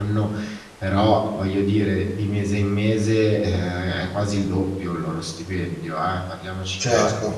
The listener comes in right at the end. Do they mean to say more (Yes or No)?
Yes